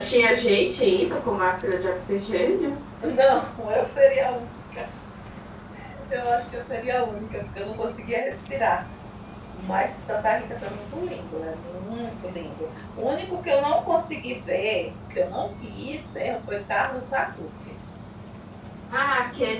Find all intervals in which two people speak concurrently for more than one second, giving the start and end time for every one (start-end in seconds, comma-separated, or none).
none